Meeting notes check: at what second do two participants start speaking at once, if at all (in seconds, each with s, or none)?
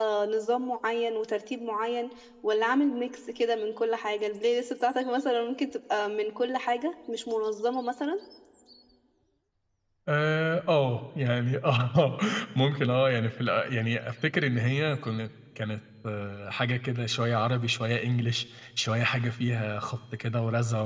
none